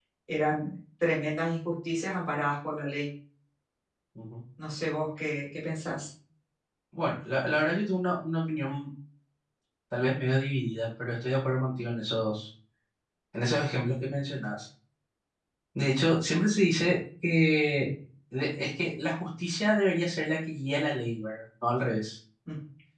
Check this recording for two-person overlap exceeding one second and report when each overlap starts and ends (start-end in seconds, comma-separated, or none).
none